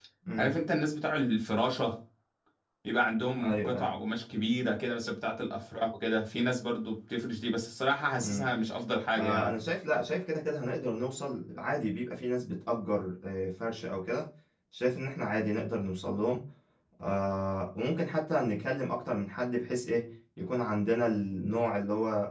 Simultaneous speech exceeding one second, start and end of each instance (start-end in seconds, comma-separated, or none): none